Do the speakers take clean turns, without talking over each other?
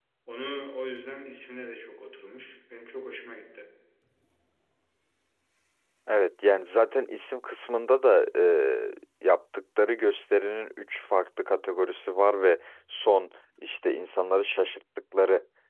Yes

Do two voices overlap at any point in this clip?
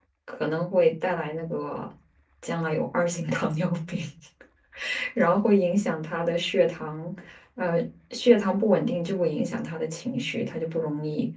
No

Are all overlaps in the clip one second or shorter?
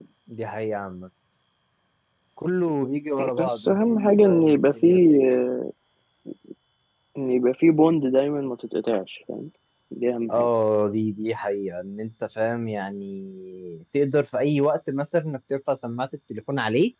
No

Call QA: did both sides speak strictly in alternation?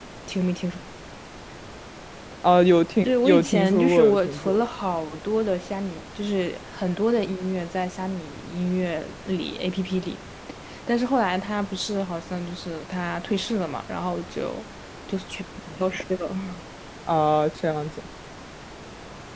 No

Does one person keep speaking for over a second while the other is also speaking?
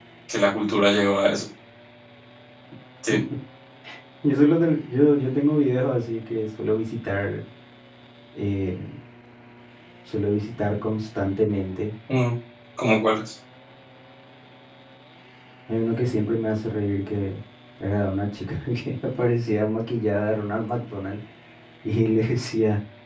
No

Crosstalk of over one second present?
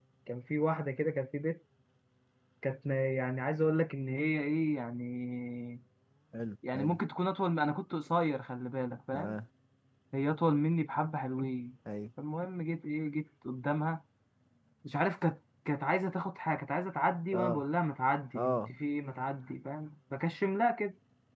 No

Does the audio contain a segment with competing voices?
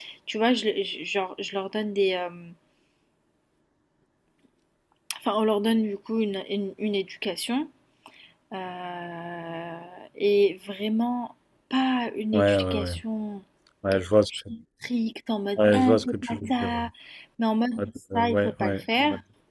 Yes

